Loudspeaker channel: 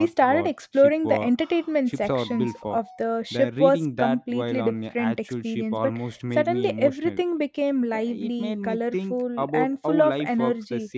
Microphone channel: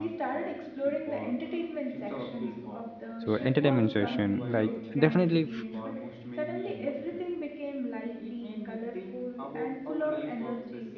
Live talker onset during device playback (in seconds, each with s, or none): 3.2 s